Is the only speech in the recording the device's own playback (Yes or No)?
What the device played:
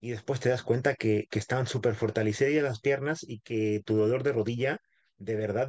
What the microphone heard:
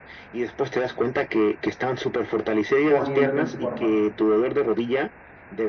No